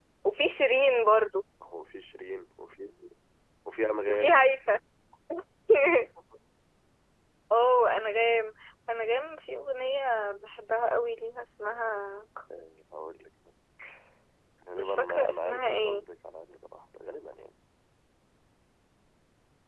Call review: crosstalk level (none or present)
present